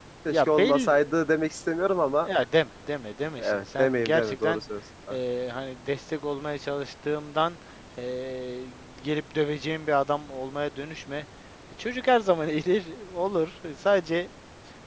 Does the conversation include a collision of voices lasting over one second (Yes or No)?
Yes